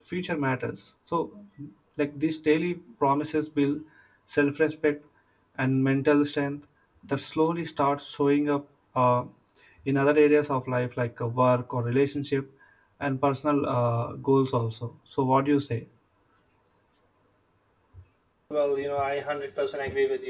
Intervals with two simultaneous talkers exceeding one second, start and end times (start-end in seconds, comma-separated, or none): none